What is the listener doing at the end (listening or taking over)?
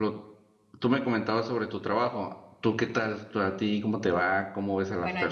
taking over